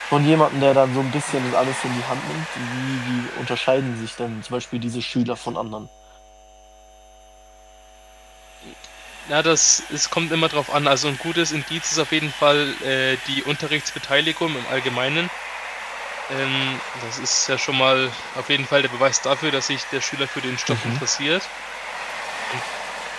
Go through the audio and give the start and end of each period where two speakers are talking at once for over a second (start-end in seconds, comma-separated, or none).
none